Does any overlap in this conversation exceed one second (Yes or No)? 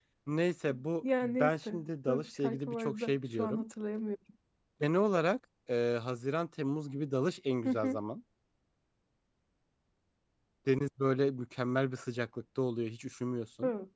Yes